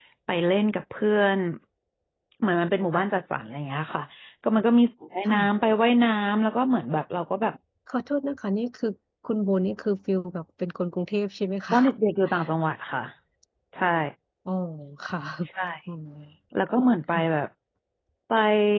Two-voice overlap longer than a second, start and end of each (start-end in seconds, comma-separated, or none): none